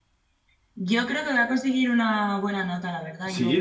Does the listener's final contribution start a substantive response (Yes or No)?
Yes